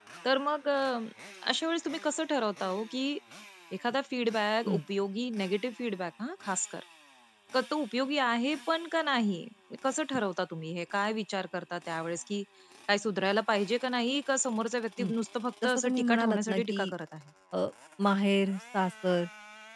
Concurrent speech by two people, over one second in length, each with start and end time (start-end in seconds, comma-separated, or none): 15.6-16.9